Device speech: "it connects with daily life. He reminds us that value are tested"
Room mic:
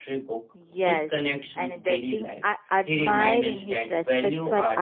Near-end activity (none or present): present